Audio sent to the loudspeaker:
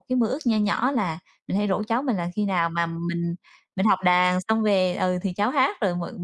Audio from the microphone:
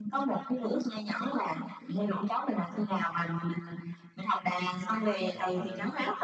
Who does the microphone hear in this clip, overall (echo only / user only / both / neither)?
both